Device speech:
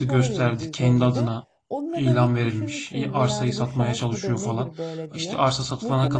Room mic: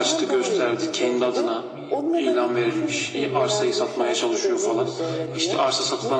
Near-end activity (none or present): present